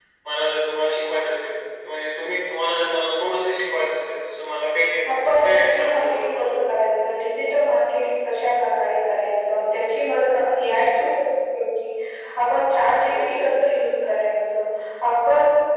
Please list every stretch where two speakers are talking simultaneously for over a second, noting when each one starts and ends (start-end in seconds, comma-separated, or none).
5.1-6.5